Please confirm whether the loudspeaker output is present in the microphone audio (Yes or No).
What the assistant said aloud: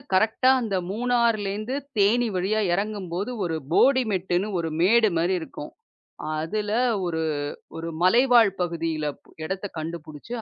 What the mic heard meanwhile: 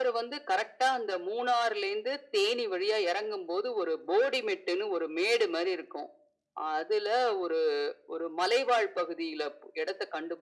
Yes